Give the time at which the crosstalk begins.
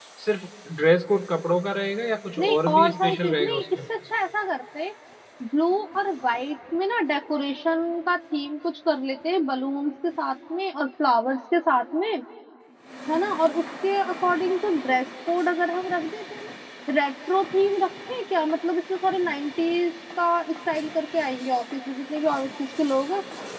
2 s

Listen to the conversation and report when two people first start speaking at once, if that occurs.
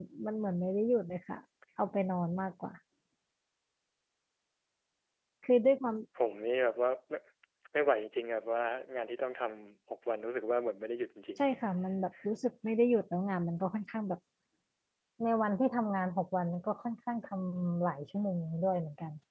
none

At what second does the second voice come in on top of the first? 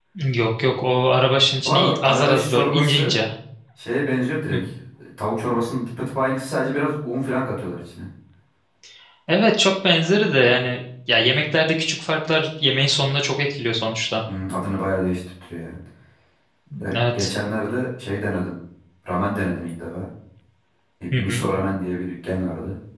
2 s

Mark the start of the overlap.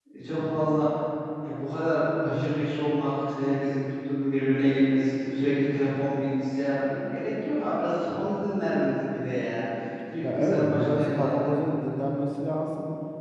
10 s

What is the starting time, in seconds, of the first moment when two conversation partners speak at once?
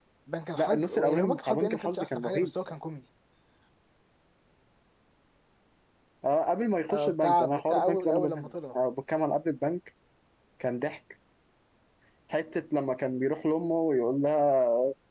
1 s

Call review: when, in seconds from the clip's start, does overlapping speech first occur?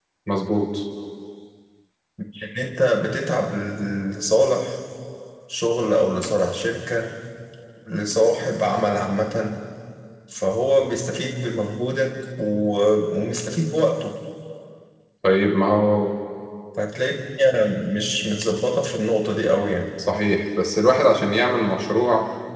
none

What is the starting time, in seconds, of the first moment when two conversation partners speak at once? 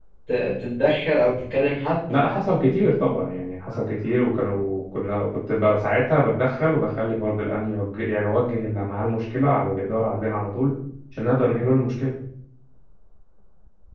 none

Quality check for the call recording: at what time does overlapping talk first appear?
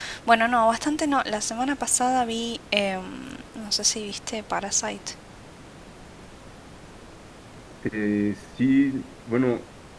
none

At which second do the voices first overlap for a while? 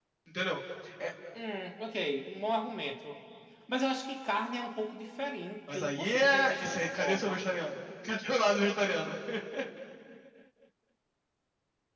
6 s

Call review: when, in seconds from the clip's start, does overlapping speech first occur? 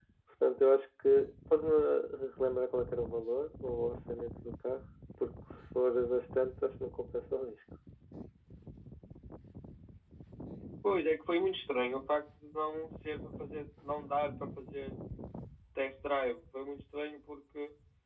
none

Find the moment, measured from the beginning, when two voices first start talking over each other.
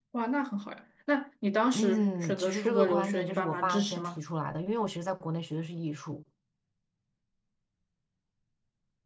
2 s

